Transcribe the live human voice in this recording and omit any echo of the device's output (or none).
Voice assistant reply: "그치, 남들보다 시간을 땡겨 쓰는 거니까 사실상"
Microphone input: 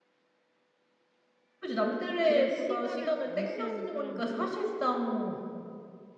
그런 시간을 감시하는 사람으로서